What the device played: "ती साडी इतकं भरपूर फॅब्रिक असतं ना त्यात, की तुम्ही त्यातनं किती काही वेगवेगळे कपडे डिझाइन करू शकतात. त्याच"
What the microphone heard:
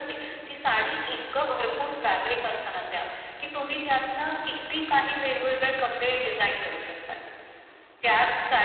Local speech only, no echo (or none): none